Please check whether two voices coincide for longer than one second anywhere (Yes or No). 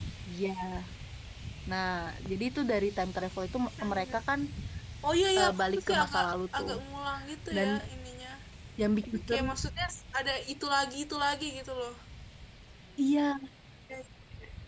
Yes